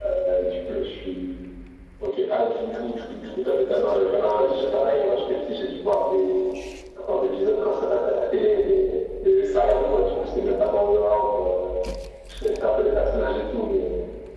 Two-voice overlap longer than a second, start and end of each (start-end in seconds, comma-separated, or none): 3.6-5.2